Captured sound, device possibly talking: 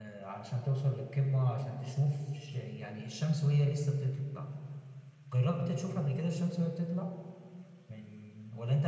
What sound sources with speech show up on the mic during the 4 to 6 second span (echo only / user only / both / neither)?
echo only